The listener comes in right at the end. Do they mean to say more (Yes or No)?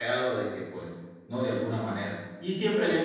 No